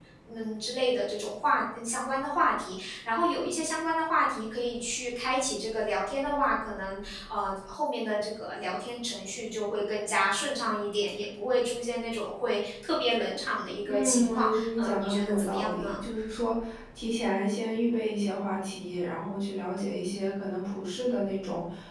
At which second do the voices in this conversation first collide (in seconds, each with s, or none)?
13.8 s